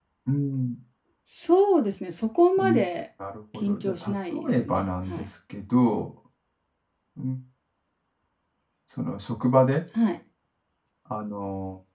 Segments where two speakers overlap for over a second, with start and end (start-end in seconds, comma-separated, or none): 3.5-5.3